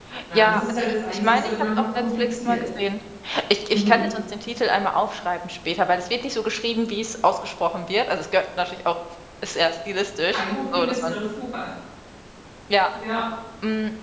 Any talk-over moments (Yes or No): Yes